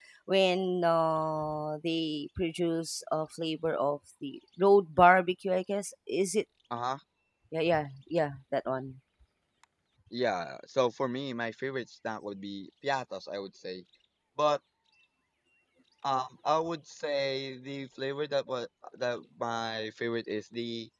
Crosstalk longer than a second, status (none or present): none